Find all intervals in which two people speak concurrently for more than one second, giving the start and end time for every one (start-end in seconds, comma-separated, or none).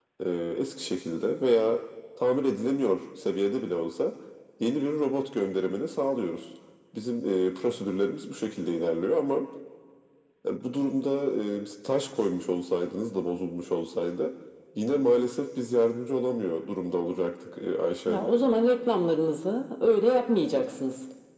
none